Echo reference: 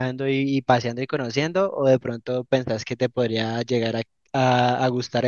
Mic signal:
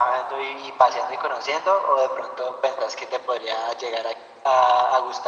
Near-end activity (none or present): none